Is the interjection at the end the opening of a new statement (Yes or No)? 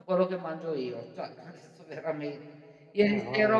No